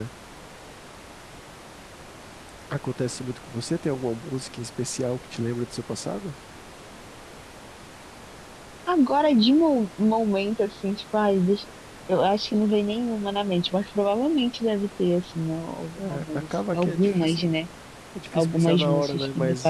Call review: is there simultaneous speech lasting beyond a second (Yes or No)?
Yes